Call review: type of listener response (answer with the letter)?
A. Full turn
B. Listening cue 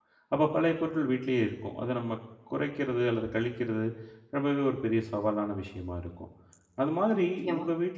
B